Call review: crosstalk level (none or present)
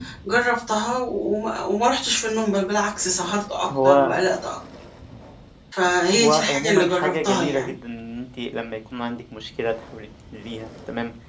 present